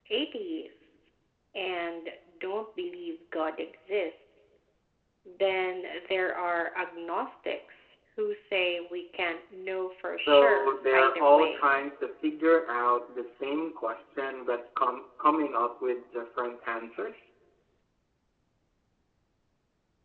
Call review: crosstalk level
present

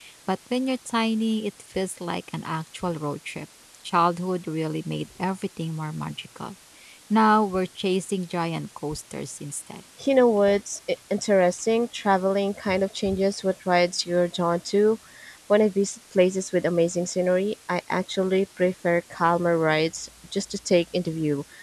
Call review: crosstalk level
none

